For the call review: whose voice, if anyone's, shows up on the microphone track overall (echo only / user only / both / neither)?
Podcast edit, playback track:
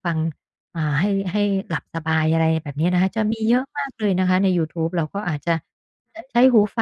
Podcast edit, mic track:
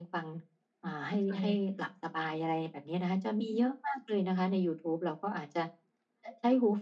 both